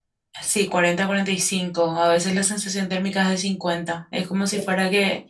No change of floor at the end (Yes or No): Yes